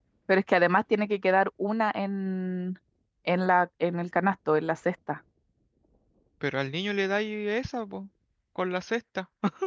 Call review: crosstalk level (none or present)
none